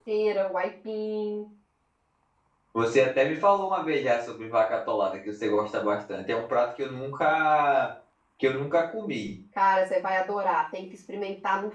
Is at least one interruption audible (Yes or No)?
No